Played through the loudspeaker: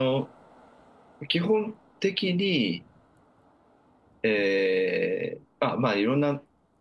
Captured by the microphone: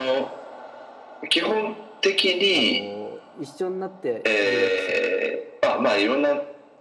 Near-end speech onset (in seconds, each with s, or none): 2.5 s